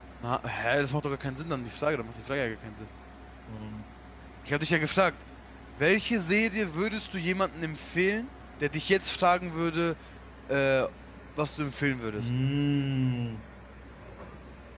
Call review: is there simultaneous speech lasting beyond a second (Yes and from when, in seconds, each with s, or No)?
No